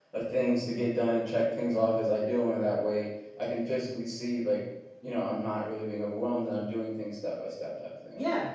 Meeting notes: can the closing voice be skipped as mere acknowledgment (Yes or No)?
No